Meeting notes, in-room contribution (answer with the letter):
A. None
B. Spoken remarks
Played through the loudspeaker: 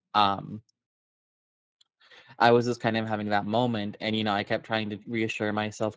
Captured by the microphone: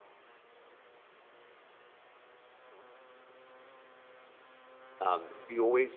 B